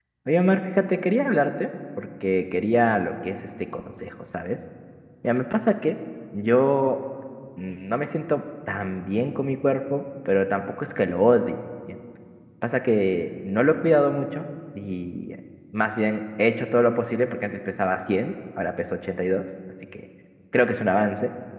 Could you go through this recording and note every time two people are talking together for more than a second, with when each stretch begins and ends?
none

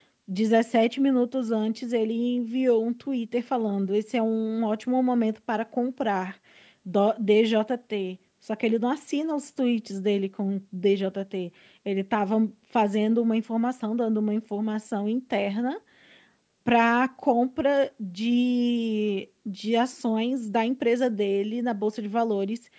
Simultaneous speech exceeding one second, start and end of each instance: none

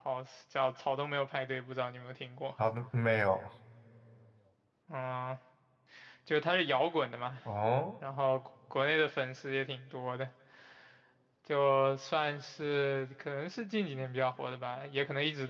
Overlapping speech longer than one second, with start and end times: none

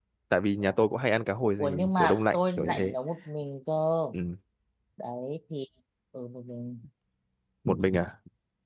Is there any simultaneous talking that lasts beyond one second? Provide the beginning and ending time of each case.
1.6-2.9

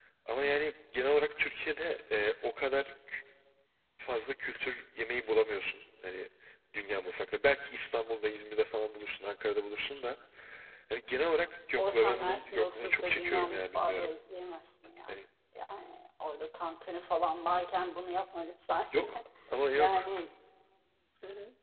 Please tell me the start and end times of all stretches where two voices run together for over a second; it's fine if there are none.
11.8-14.1

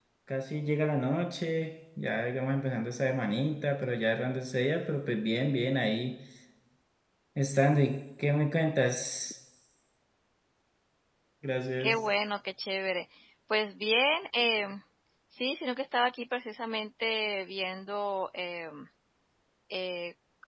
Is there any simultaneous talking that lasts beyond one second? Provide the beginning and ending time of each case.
none

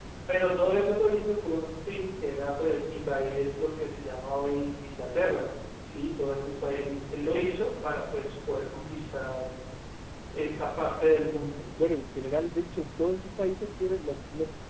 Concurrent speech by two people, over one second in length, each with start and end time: none

